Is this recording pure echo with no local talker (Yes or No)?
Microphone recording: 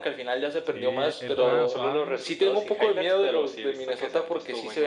No